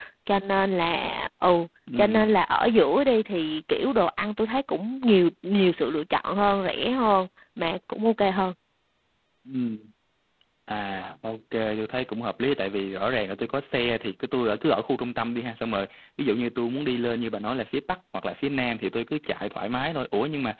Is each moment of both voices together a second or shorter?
Yes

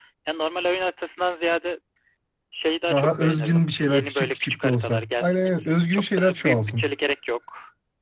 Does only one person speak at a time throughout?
No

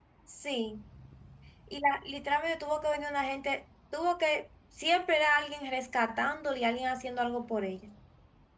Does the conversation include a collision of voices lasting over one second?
No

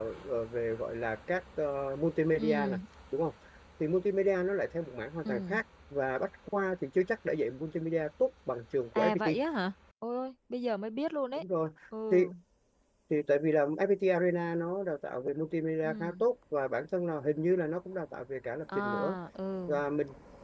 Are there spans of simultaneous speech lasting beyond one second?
No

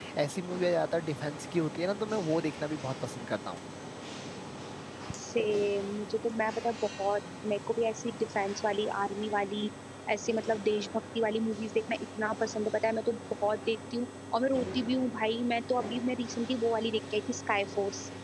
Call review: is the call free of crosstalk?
Yes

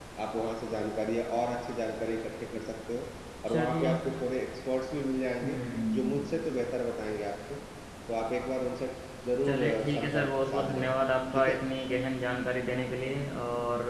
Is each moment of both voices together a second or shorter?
No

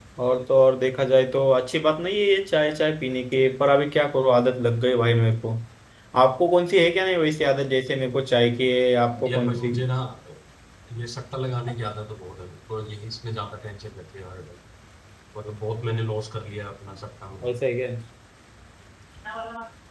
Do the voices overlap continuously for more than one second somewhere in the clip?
No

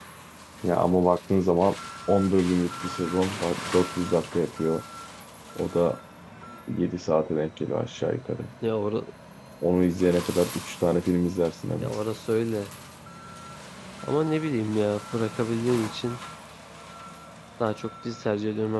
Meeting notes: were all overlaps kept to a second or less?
Yes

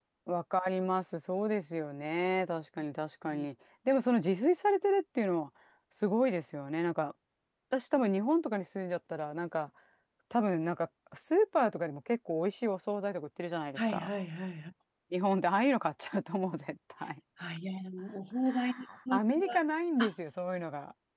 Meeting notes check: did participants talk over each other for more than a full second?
No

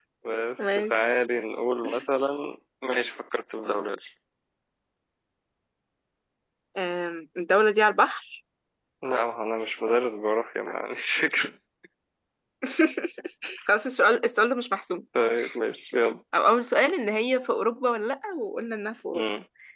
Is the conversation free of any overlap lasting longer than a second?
Yes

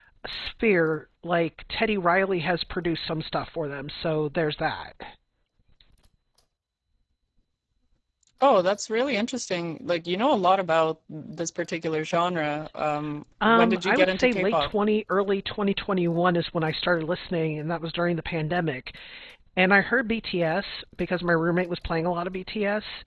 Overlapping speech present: Yes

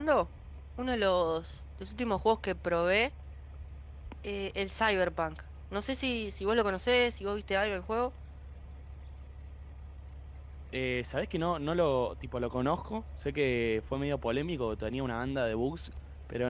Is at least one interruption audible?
No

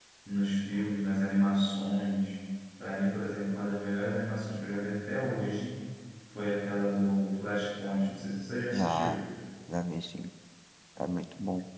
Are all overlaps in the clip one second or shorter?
Yes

